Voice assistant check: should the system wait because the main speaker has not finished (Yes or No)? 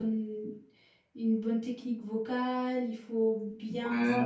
Yes